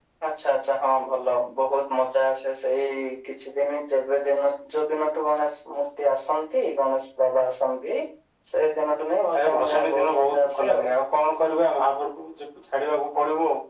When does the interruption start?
9.4 s

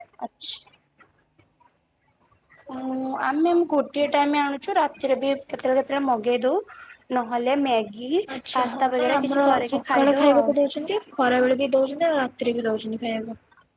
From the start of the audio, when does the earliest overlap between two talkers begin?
8.6 s

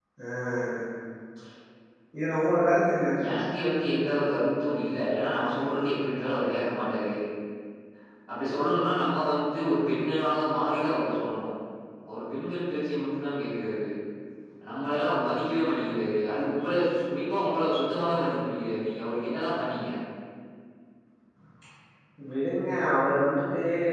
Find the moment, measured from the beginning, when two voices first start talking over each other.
none

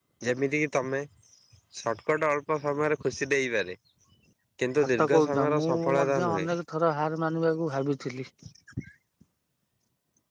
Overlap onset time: 4.8 s

